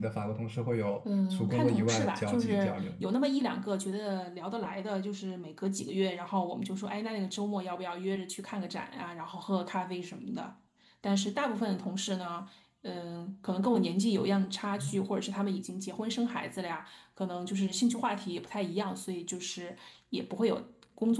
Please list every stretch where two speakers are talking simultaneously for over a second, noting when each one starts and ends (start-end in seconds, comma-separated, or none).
1.3-3.1